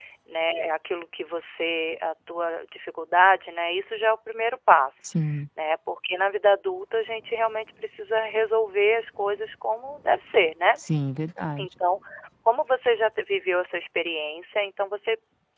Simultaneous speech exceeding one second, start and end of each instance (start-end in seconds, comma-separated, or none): none